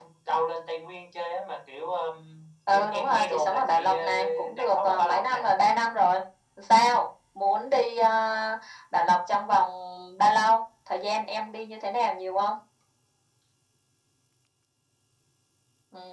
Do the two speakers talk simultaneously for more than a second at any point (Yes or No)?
Yes